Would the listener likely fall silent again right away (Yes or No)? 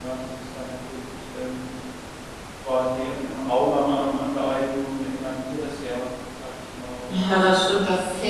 No